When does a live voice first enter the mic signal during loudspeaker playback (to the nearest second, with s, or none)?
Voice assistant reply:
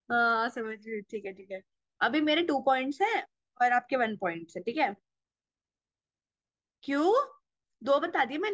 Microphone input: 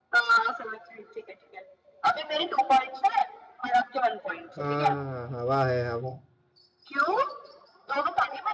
5 s